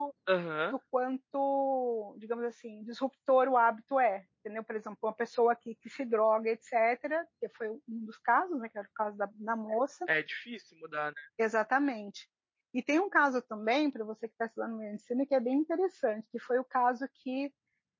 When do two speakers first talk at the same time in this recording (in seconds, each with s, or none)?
none